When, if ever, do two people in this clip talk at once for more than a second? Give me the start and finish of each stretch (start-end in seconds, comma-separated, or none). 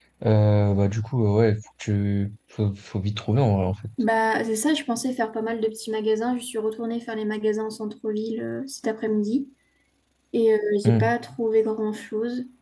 none